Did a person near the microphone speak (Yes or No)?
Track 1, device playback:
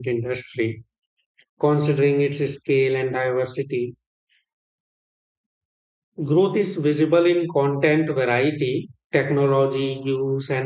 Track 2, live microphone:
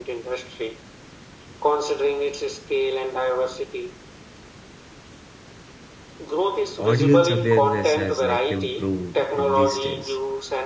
Yes